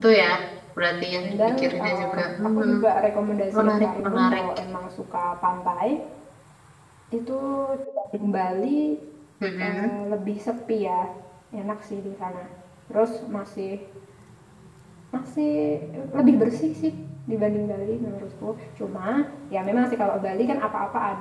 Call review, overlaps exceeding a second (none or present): present